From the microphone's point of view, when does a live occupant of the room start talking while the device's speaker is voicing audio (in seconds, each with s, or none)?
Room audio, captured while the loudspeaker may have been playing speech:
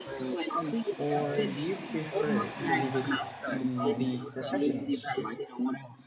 0.9 s